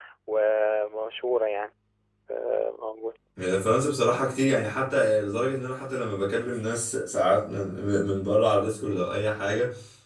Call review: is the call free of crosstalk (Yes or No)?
Yes